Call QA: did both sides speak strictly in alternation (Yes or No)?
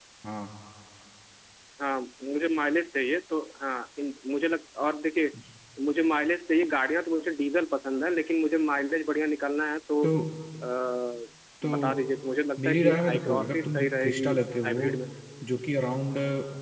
No